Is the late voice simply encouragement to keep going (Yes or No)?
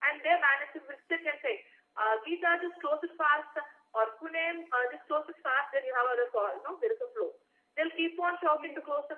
Yes